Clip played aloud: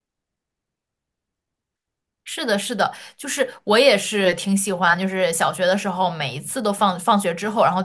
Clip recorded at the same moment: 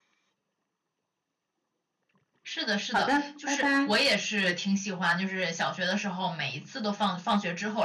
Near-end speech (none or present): present